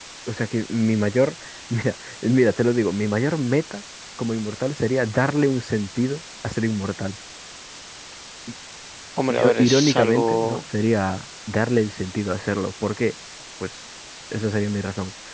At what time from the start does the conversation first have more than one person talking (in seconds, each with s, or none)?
9.3 s